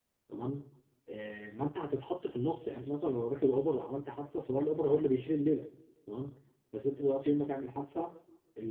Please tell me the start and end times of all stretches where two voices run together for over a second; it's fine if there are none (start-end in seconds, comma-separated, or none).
none